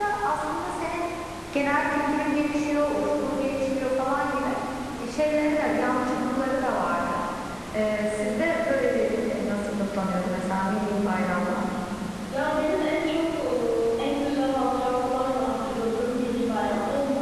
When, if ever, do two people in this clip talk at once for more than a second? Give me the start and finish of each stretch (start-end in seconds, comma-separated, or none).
none